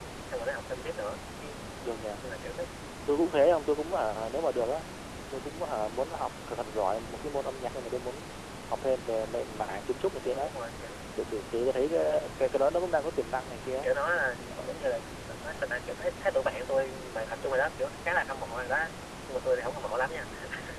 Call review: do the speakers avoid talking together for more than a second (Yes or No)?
Yes